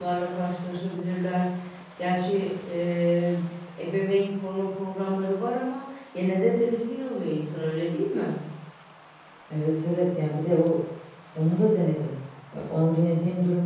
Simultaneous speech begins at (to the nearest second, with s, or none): none